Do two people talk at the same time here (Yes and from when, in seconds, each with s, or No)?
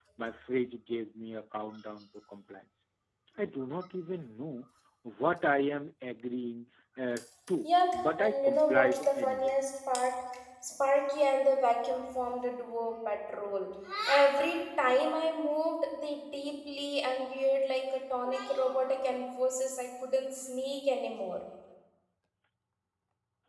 Yes, from 8.2 s